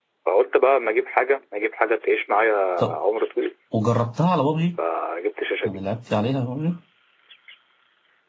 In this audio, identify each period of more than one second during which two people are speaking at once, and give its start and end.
none

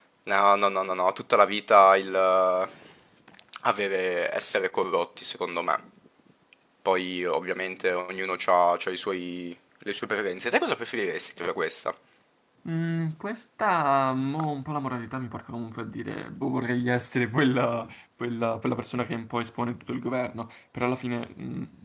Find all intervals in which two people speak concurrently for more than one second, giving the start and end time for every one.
none

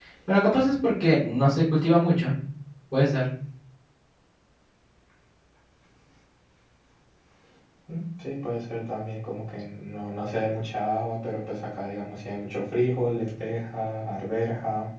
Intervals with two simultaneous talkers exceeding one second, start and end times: none

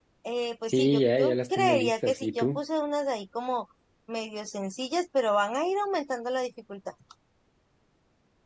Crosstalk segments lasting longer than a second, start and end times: 0.7-2.6

